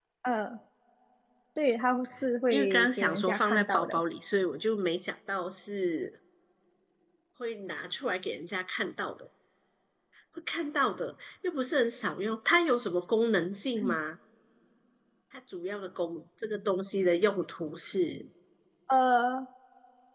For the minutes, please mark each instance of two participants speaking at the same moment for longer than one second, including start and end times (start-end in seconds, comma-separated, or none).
2.5-4.0